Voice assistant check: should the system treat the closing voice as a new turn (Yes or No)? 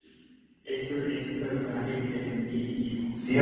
Yes